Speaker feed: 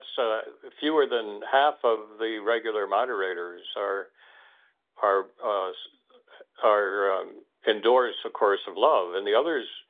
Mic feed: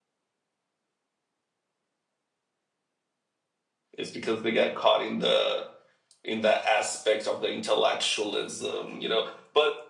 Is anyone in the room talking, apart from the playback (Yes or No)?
Yes